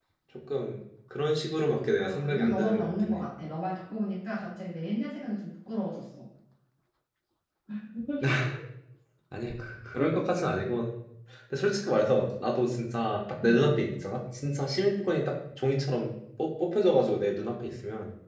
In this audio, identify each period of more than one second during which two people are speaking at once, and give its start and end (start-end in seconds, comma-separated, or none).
2.0-3.3